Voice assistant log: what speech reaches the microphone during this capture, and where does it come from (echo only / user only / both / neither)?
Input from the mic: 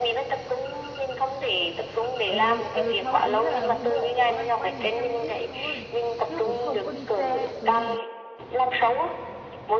both